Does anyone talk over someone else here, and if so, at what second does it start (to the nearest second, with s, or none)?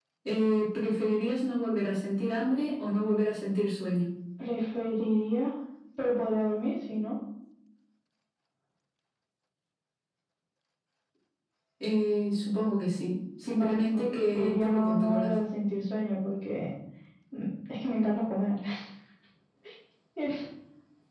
14 s